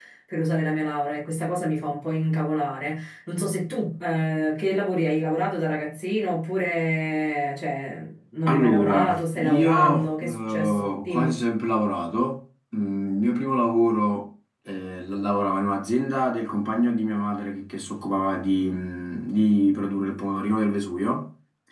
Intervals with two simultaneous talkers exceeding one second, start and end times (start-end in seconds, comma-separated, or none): 8.5-11.3